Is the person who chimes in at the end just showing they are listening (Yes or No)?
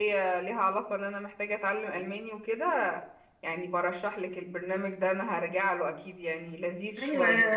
No